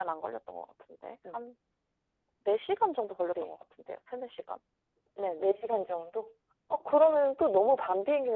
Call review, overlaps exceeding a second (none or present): none